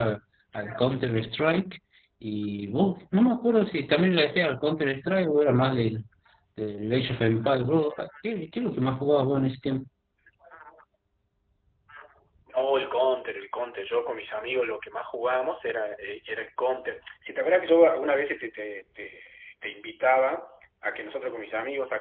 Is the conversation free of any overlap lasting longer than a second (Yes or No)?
Yes